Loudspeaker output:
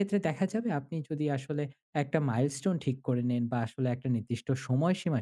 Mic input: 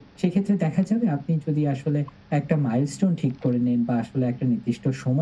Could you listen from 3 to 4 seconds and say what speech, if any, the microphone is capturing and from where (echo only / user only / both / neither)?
echo only